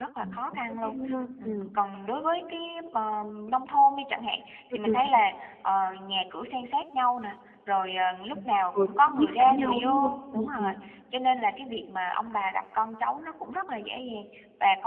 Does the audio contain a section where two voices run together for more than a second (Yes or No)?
Yes